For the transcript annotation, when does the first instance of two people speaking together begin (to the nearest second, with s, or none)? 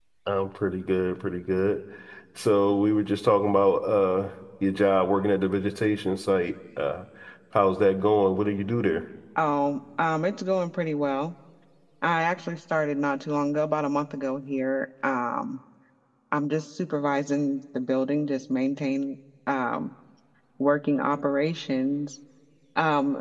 none